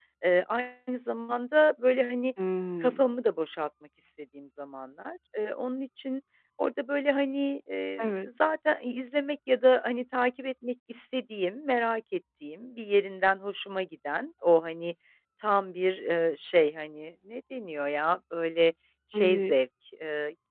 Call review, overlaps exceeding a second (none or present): none